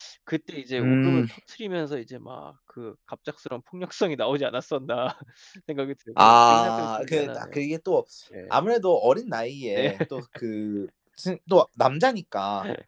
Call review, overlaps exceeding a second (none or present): present